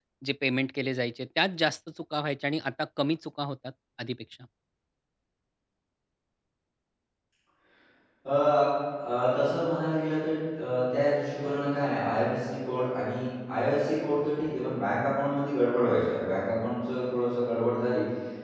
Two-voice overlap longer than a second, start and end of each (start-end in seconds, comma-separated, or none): none